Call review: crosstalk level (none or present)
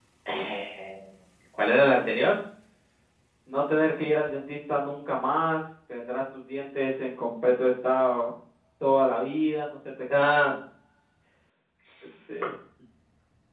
none